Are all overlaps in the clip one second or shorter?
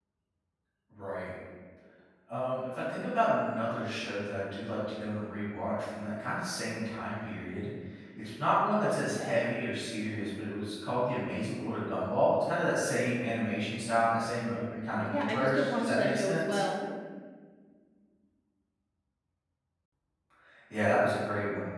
No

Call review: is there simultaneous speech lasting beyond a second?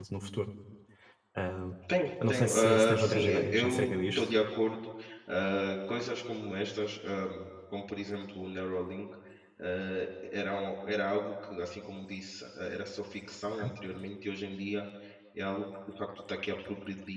Yes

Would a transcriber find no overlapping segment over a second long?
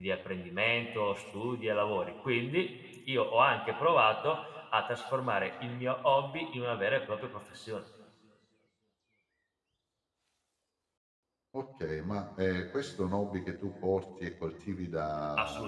Yes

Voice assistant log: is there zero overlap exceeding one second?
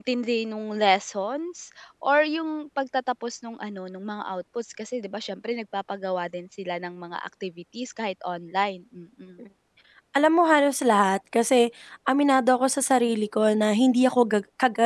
Yes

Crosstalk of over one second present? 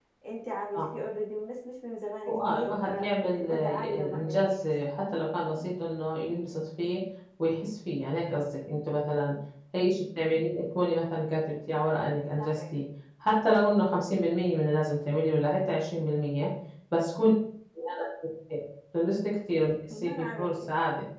Yes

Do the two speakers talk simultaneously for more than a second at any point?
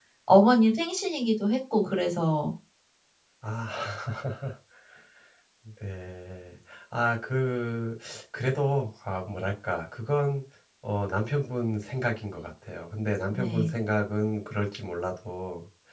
No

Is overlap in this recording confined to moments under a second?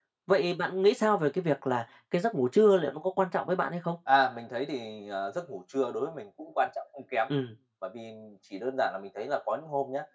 Yes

